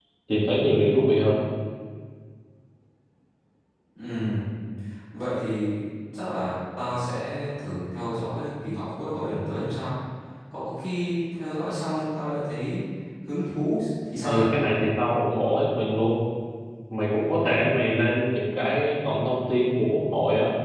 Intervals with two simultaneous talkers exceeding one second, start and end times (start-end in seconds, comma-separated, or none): none